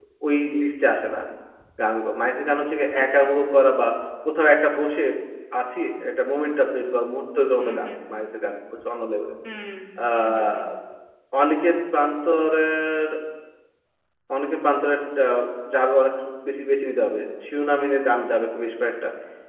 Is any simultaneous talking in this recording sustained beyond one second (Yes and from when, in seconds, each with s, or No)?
No